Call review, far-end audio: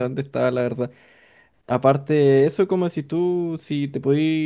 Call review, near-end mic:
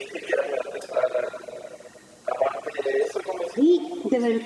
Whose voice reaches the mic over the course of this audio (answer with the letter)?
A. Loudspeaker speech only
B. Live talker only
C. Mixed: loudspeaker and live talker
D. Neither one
C